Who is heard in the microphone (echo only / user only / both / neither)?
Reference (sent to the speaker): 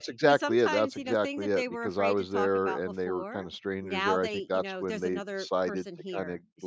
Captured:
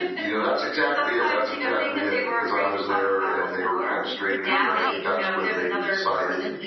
both